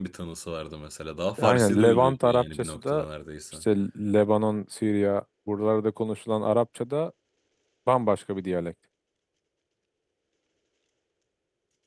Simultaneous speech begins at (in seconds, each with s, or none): 1.4 s